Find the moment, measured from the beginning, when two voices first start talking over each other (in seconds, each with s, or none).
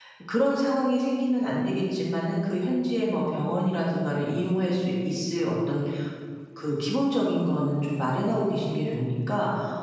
none